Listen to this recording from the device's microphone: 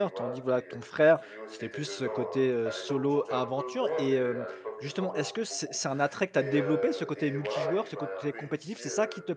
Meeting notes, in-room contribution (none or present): present